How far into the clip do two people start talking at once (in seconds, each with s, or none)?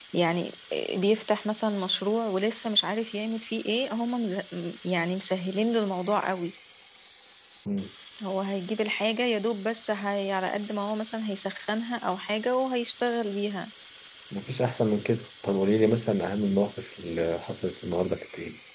none